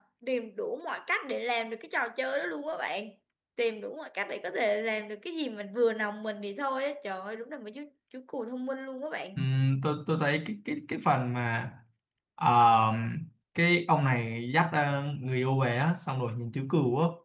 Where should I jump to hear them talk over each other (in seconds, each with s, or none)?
none